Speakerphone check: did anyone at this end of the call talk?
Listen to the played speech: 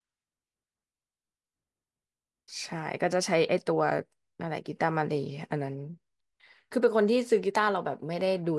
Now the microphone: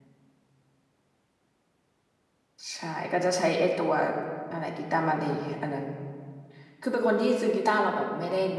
No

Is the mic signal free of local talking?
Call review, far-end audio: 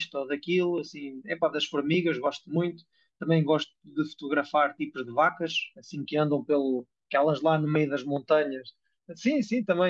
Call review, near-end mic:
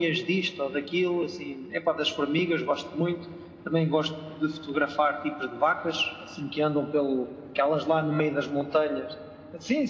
Yes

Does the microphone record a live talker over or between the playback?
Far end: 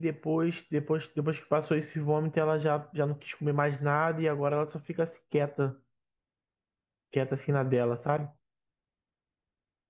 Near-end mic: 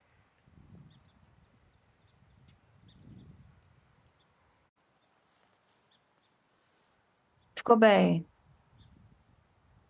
Yes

